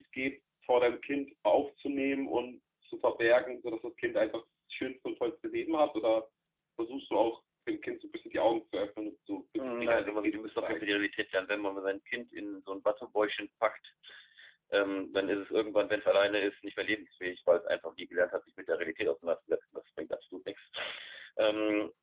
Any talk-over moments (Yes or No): Yes